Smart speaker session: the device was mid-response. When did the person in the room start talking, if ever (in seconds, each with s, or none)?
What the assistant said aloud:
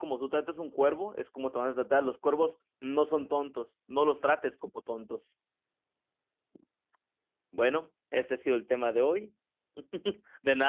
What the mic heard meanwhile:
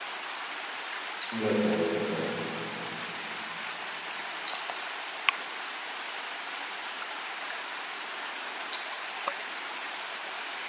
1.3 s